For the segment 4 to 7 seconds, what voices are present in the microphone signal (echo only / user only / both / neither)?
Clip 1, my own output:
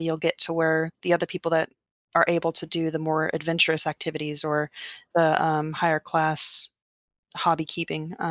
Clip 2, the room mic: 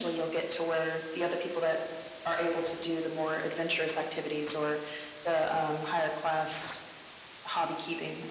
echo only